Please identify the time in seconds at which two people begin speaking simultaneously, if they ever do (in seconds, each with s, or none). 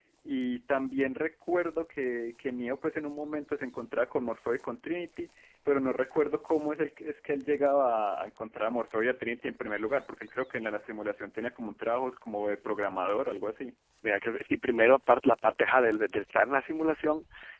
none